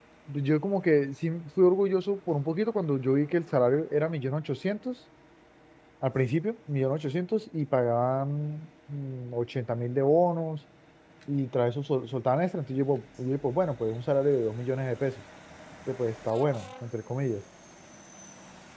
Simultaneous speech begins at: none

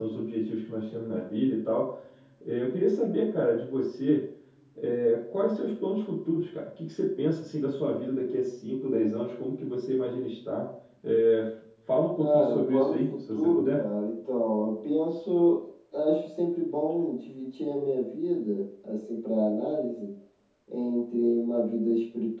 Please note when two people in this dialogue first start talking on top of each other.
12.2 s

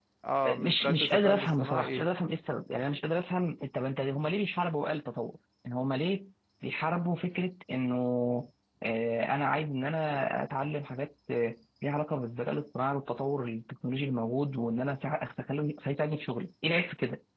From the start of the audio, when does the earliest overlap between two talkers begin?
0.6 s

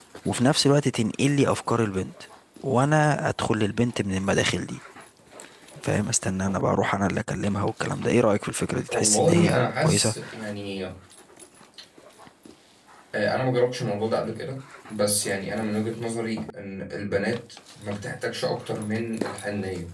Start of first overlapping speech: 8.9 s

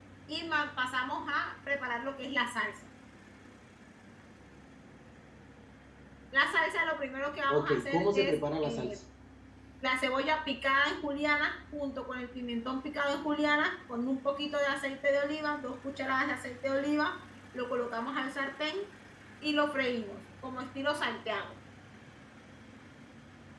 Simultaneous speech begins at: 7.5 s

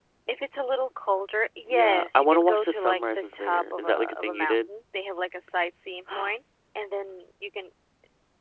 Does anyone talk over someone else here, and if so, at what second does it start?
1.7 s

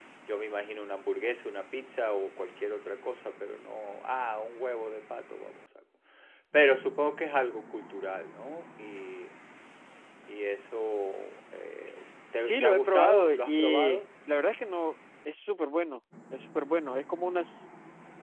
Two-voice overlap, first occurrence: 12.3 s

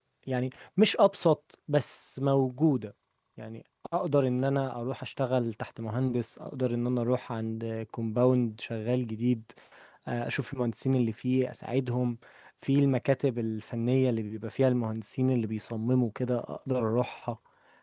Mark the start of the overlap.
none

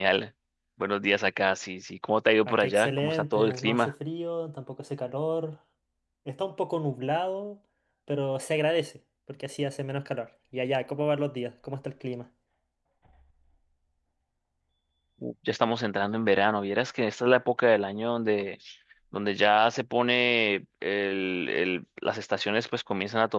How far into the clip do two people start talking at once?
2.5 s

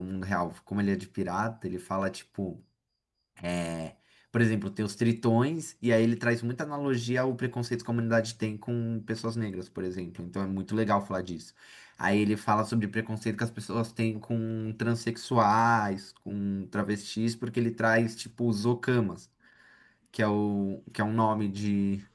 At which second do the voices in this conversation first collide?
none

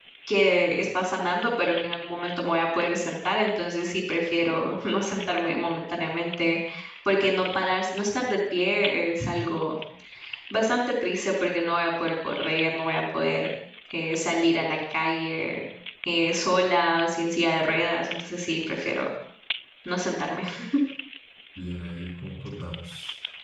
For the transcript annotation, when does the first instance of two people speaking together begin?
none

